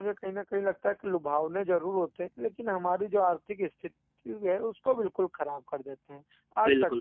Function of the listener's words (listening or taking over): taking over